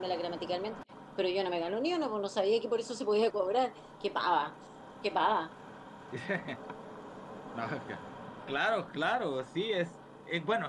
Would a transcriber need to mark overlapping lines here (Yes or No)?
No